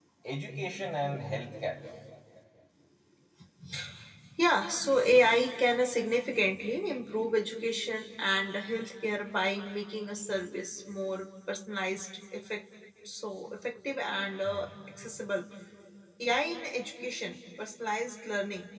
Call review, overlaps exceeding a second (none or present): none